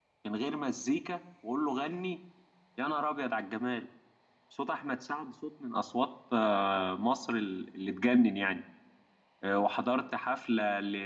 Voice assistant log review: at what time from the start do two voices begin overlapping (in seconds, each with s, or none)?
none